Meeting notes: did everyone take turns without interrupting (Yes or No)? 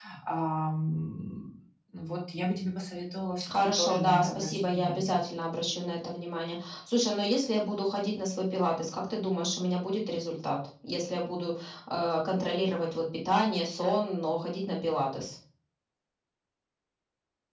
No